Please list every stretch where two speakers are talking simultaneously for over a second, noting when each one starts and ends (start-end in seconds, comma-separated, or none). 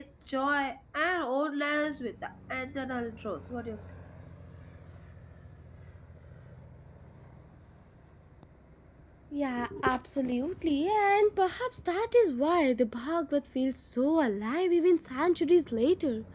none